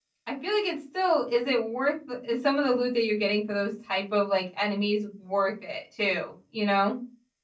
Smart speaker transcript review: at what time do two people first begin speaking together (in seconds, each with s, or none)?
none